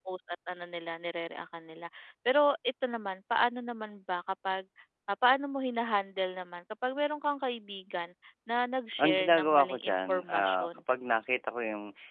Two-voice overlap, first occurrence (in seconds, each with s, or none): 9.0 s